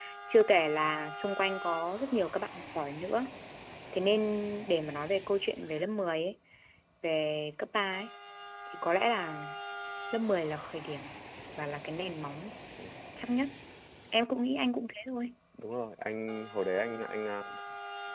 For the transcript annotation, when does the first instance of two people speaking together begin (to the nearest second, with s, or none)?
none